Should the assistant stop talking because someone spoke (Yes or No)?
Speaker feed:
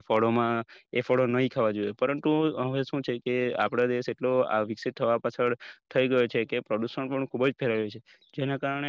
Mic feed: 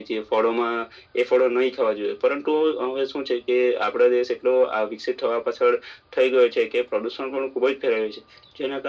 No